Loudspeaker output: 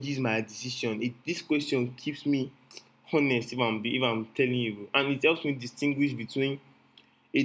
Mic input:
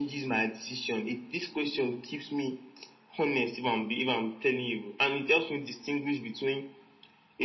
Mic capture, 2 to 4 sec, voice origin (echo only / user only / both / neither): echo only